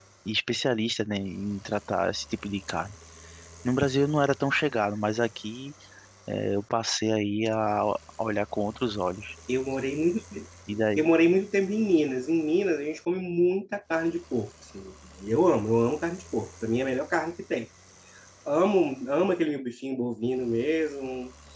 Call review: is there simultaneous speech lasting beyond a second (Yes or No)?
No